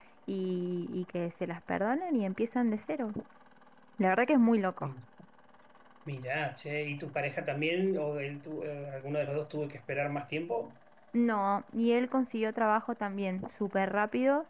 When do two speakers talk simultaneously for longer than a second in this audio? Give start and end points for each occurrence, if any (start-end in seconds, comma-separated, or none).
none